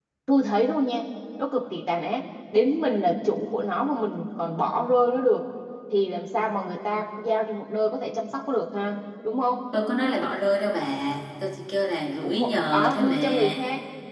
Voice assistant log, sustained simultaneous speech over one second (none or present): present